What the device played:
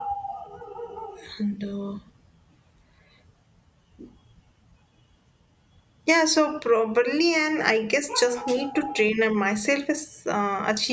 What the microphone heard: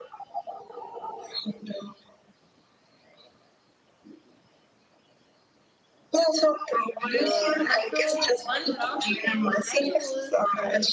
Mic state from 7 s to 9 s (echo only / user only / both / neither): both